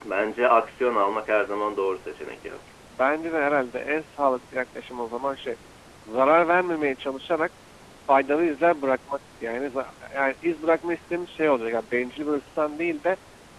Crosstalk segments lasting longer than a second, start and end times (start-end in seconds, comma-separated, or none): none